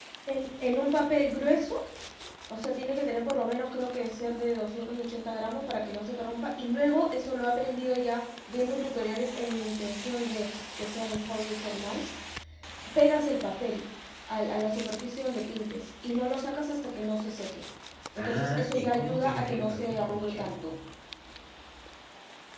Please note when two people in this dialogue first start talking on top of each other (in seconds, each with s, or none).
18.2 s